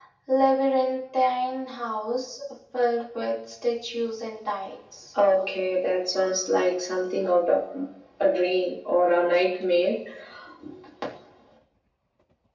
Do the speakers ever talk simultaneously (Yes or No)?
No